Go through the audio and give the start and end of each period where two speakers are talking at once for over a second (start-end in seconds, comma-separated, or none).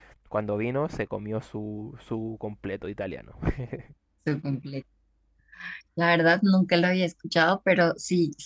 none